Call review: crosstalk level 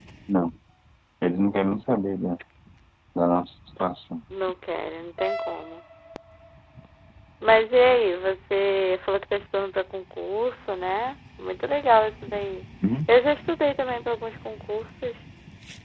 none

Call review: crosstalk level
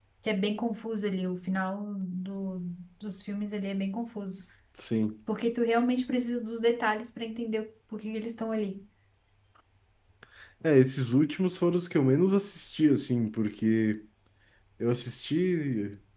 none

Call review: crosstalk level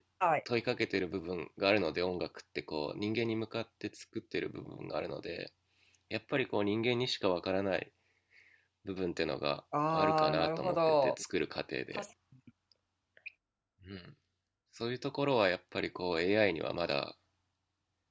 present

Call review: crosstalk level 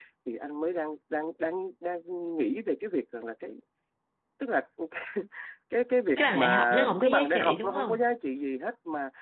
present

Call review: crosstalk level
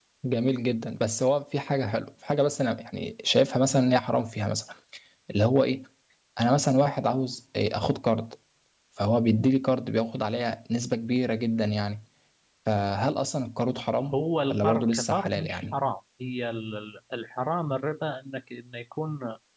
present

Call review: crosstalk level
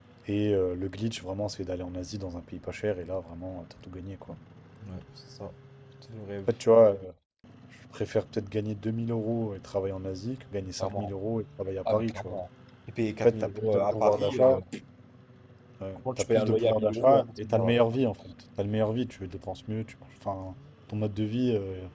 present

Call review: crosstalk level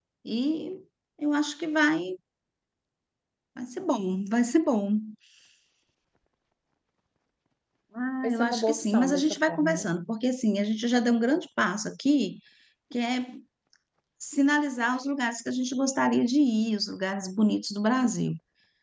present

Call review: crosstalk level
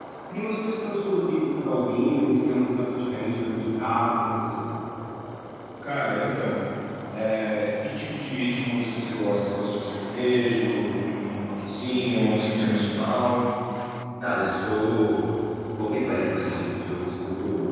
none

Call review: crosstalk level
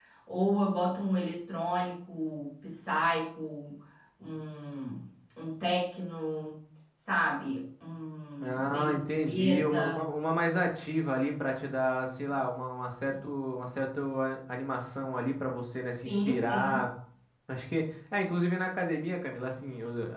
present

